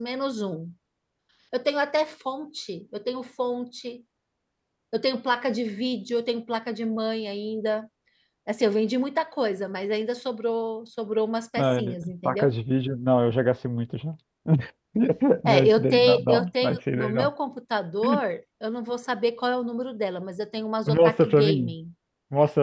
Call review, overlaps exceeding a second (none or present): present